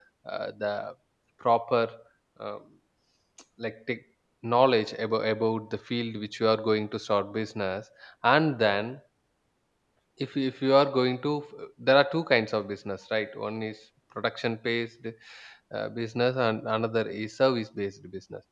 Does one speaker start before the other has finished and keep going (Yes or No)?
No